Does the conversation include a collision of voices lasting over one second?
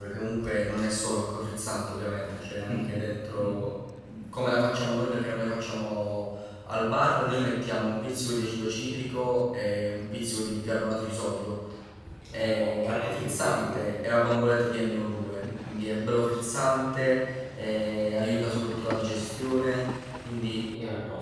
Yes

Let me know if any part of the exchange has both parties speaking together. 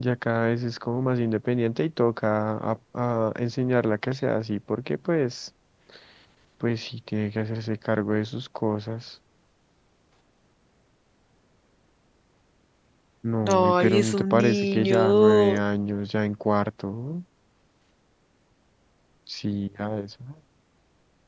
Yes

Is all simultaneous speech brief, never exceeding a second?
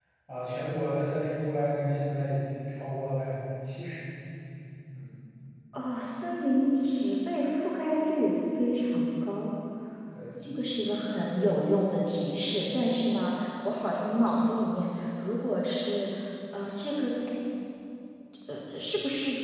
Yes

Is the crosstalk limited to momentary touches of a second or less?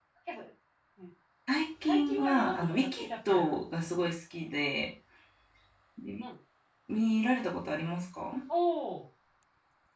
No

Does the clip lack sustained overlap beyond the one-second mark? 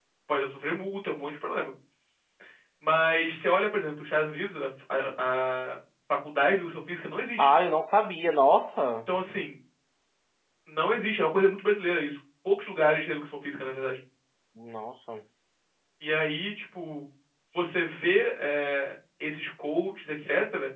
Yes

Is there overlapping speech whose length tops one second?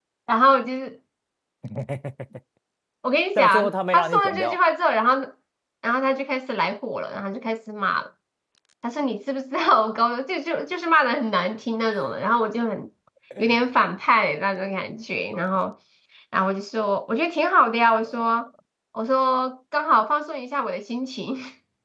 Yes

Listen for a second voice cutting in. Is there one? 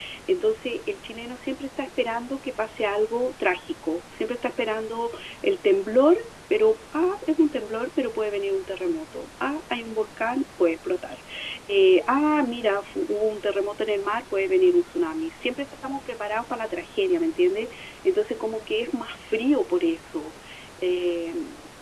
No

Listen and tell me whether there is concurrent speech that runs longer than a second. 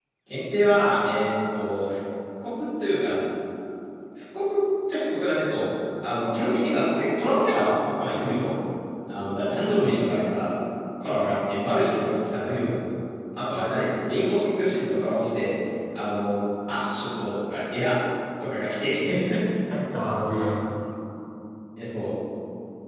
No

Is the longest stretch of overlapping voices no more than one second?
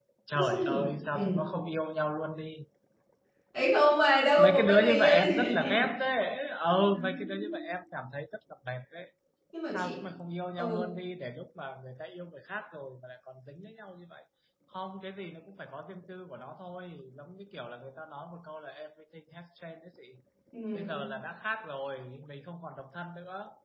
No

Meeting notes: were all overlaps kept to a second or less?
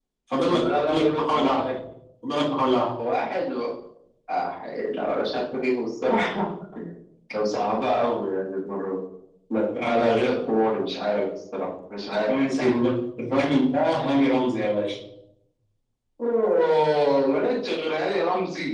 No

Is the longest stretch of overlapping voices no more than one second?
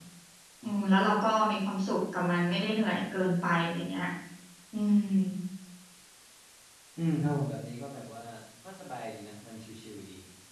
Yes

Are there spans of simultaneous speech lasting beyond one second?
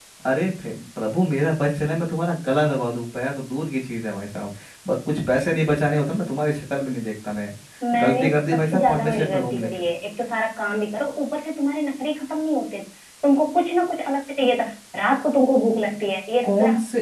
Yes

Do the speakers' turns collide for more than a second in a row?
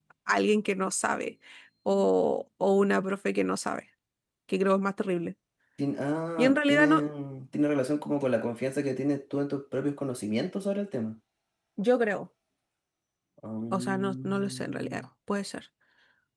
Yes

